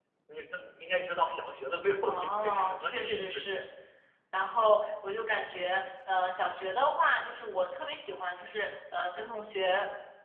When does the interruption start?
2.0 s

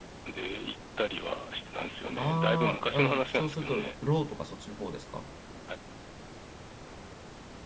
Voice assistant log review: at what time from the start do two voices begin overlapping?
2.2 s

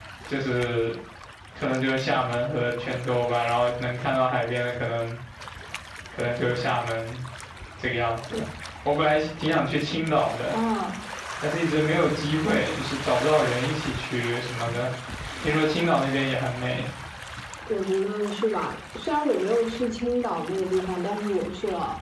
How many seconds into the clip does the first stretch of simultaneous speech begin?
none

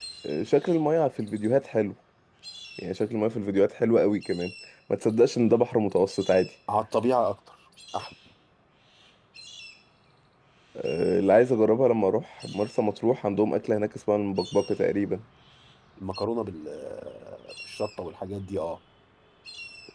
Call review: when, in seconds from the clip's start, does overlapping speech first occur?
none

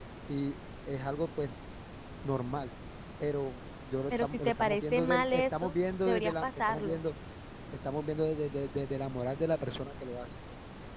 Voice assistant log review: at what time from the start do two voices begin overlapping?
4.1 s

